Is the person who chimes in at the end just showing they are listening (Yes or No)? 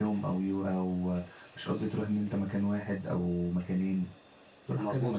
No